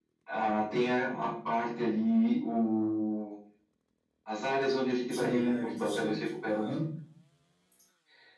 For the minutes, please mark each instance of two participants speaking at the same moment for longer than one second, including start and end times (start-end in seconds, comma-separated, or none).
5.1-6.7